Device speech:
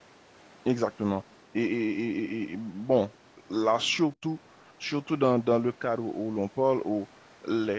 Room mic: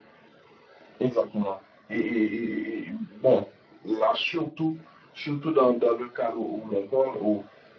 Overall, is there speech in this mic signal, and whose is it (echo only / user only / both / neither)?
echo only